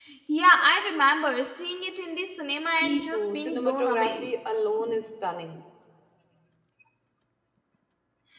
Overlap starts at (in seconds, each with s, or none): 2.8 s